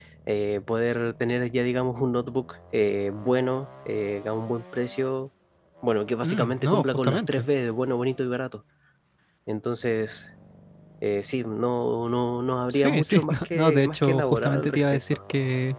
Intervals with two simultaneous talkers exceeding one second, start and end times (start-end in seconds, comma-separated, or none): 6.2-7.5, 12.7-15.2